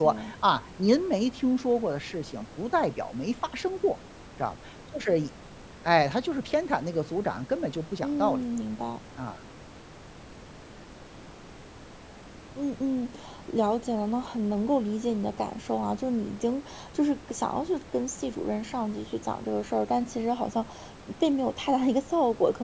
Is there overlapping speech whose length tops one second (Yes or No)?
No